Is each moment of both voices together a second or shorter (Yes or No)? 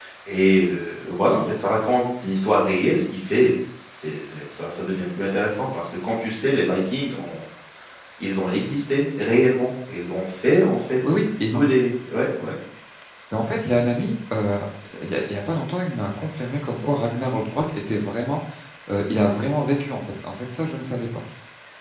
Yes